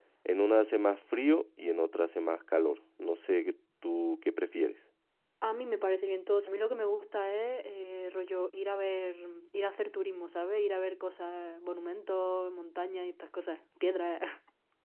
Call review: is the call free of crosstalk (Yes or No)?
Yes